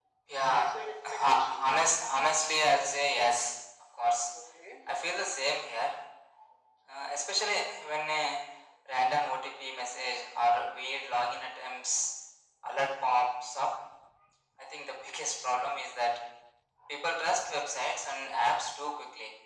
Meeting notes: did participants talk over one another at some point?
Yes, from 0.5 s

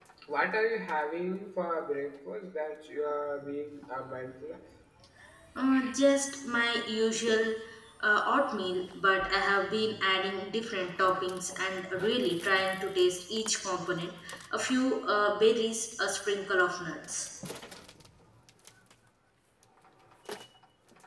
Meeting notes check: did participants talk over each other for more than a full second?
No

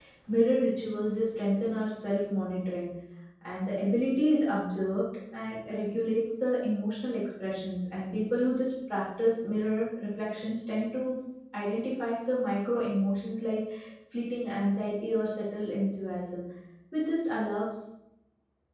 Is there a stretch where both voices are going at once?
No

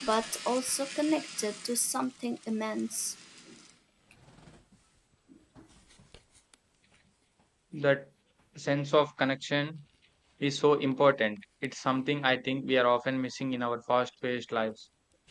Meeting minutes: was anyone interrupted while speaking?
No

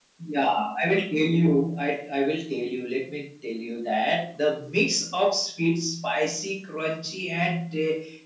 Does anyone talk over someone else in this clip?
No

